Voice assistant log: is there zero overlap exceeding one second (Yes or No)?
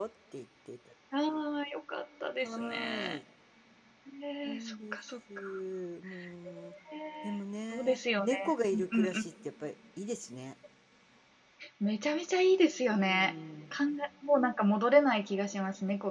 No